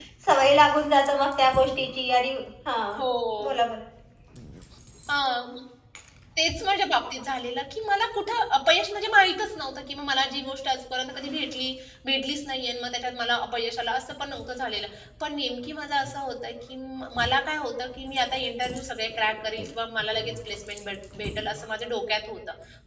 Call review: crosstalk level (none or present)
none